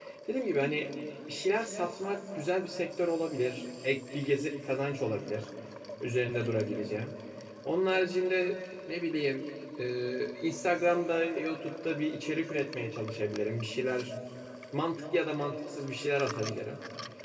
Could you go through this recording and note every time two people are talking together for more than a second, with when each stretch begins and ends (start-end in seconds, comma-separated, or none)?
none